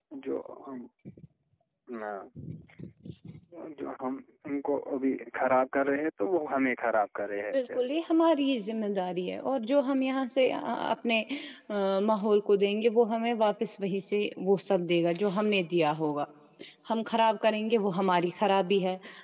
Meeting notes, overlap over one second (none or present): none